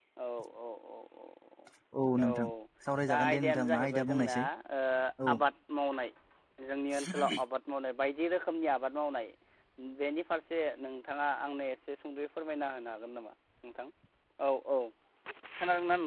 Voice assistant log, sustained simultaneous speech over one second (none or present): present